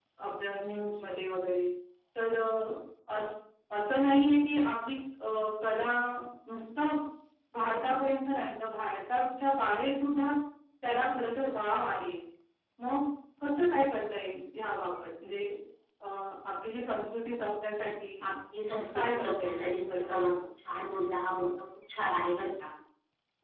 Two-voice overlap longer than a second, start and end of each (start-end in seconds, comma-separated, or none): 18.9-20.3